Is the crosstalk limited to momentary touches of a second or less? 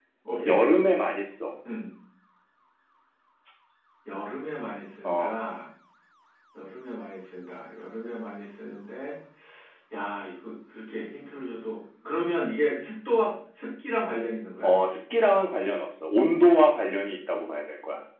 Yes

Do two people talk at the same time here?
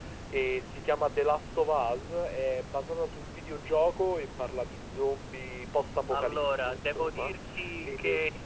Yes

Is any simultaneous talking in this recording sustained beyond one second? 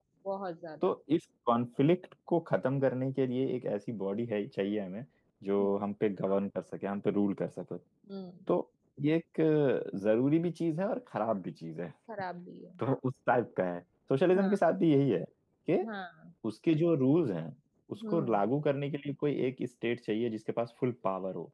No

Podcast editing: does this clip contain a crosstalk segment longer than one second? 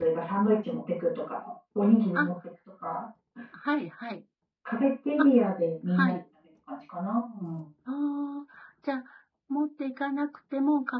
No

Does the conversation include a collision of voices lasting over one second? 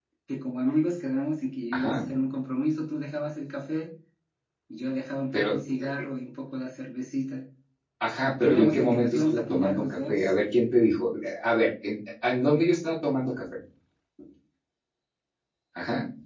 Yes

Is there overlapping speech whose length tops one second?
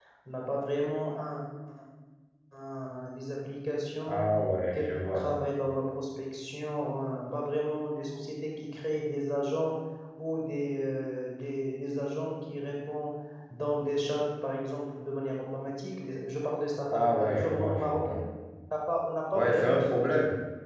Yes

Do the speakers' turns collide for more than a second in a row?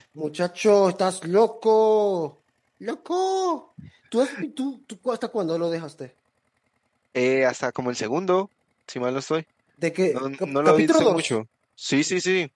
Yes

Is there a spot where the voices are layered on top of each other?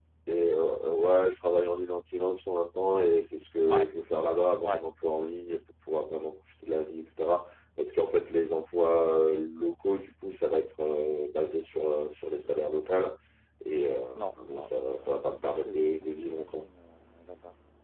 Yes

